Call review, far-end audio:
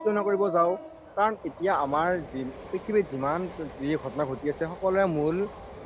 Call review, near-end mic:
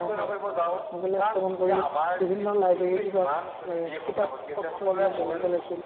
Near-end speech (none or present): present